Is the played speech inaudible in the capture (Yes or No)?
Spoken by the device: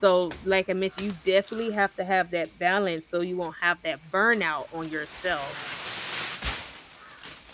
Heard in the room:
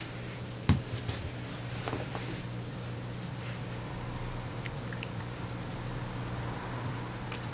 Yes